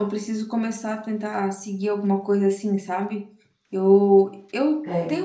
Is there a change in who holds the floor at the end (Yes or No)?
No